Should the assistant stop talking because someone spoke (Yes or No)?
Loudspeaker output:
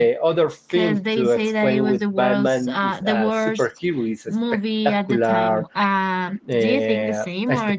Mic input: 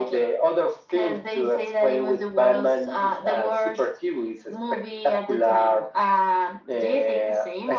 No